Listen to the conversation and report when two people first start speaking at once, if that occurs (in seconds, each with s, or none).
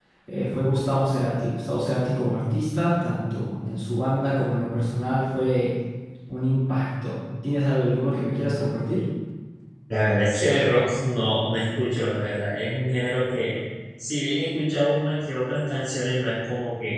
none